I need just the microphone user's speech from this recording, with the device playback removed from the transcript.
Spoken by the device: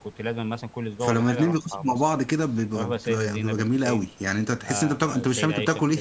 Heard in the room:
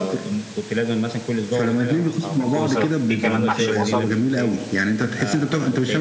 كوسه في كمان محشي بصل

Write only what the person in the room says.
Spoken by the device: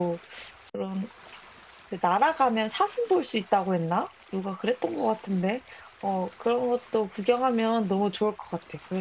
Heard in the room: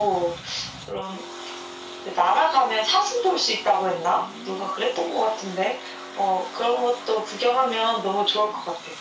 none

